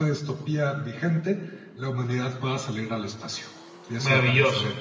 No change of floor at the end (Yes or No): No